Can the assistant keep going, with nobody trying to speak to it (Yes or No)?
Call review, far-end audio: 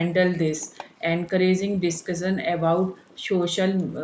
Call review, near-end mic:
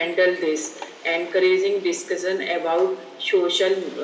Yes